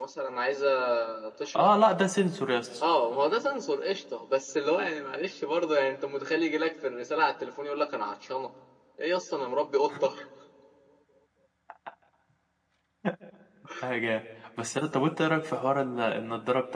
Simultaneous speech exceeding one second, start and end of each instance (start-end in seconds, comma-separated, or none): none